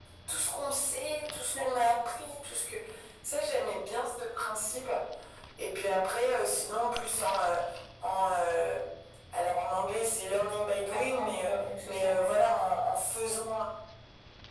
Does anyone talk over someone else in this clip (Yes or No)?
Yes